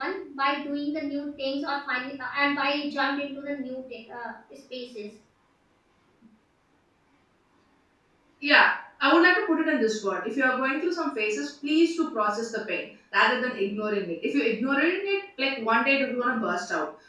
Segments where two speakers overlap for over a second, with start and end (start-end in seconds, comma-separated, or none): none